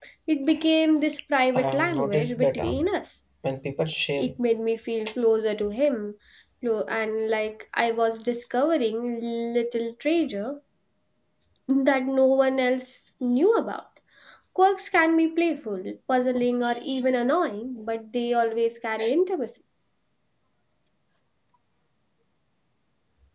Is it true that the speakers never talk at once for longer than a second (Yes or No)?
No